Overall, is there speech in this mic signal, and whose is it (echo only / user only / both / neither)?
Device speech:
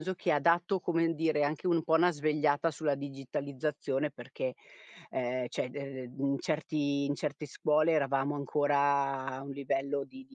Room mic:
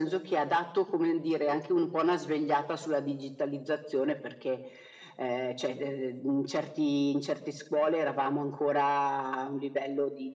echo only